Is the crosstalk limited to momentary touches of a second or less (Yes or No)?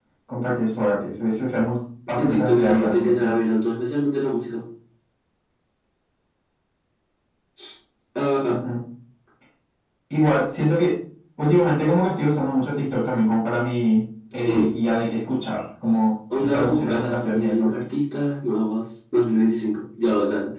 No